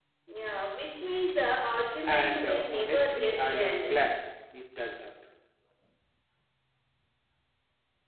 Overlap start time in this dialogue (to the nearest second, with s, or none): 2 s